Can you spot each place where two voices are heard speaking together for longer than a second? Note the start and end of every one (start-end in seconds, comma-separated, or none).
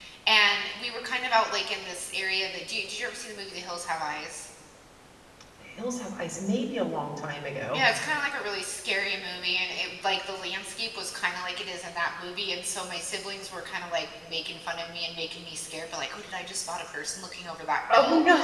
none